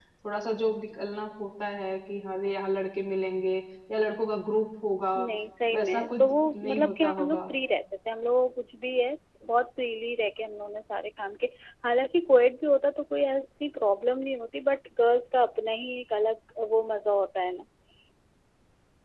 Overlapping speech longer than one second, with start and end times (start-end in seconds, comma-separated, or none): 5.7-7.4